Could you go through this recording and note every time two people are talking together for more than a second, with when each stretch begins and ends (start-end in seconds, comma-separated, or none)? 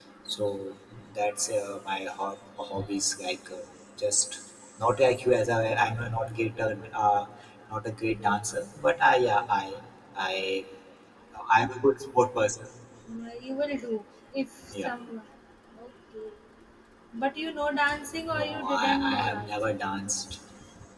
18.3-19.5